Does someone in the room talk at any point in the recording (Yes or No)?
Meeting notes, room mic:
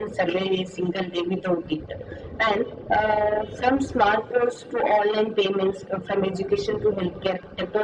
No